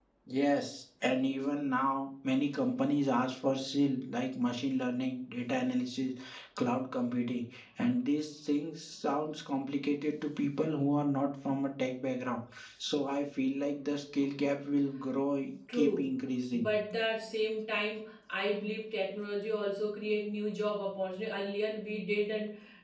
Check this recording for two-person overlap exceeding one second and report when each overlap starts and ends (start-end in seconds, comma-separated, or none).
none